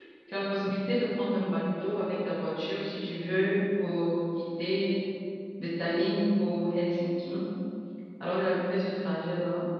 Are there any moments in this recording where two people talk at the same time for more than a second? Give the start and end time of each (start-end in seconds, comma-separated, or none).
none